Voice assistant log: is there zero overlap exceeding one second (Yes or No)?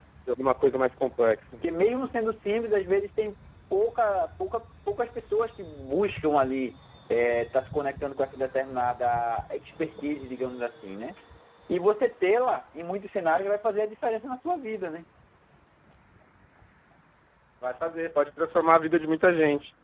Yes